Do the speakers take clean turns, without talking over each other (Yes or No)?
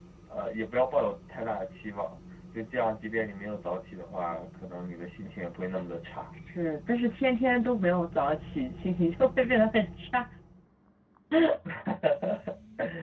Yes